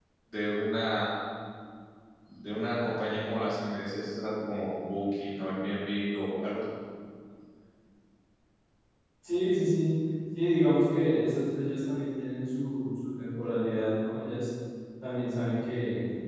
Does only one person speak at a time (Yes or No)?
Yes